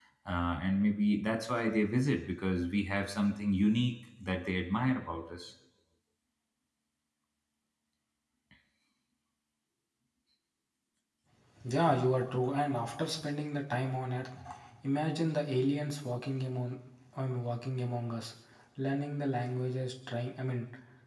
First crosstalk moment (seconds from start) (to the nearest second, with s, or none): none